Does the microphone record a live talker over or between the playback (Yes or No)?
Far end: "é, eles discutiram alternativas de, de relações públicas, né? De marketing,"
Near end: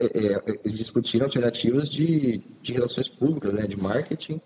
No